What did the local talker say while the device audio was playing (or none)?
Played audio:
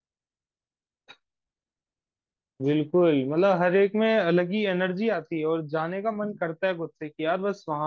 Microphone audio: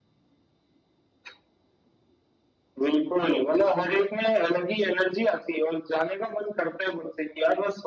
none